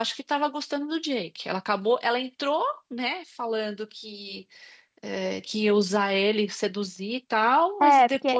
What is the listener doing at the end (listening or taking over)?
taking over